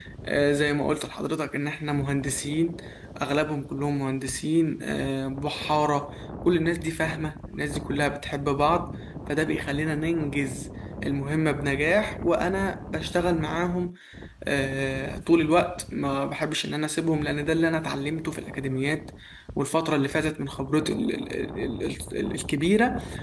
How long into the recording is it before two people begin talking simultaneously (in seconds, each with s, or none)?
none